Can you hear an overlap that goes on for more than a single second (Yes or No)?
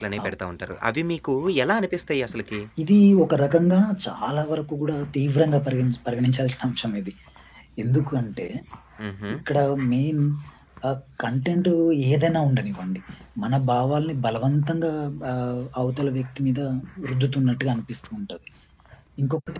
No